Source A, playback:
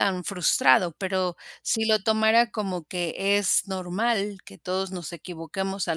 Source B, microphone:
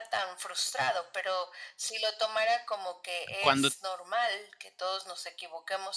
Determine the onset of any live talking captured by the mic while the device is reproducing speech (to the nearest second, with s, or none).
3 s